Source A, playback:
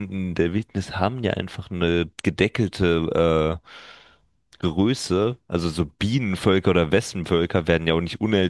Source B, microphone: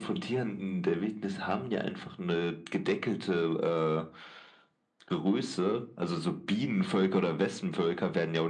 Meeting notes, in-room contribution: none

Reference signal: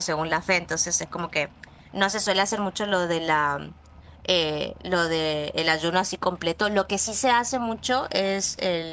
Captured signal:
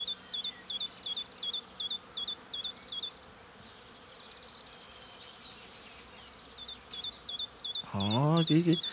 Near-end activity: present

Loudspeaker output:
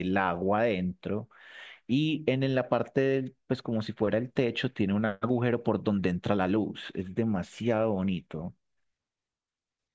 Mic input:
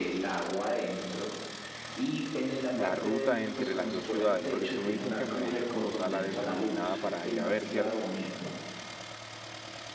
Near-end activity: present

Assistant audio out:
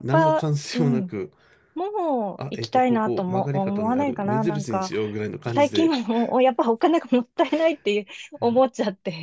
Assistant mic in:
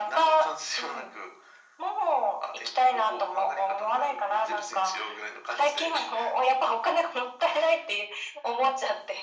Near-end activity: none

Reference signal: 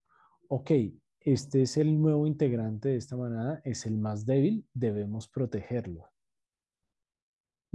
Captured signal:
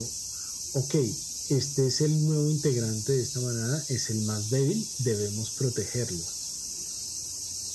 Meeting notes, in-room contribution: none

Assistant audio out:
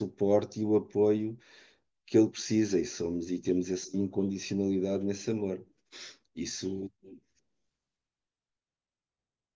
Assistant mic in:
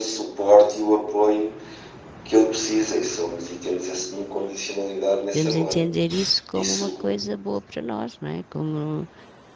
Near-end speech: present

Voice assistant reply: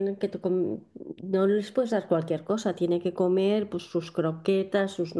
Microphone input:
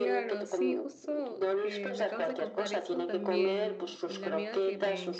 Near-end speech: present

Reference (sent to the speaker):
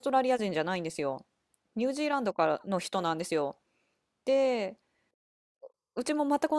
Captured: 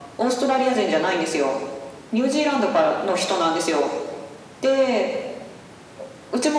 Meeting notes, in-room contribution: none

